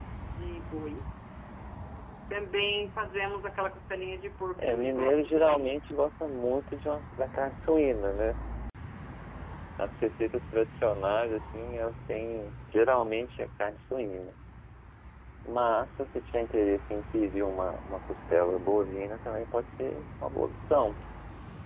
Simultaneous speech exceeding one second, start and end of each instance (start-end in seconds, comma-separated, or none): 4.6-5.8